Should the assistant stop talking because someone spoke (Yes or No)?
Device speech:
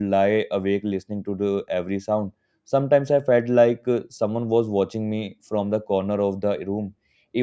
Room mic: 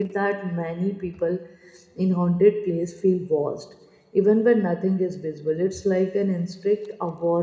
Yes